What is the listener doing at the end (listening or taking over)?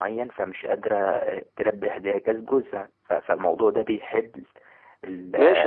taking over